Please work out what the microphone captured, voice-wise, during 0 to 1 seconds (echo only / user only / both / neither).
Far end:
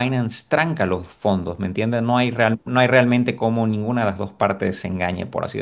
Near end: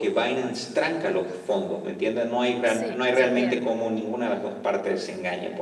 echo only